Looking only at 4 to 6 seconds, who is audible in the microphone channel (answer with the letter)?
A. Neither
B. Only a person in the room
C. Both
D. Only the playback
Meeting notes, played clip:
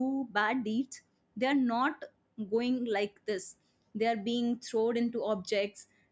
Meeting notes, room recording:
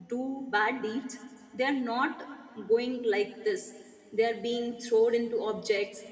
D